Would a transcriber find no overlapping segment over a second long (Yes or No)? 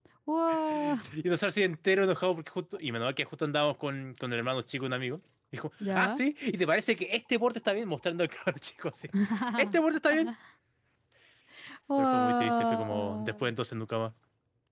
No